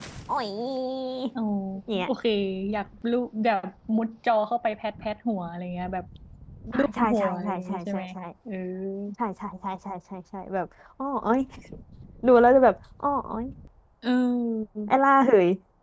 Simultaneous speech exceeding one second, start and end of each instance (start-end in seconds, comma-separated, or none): 6.8-8.0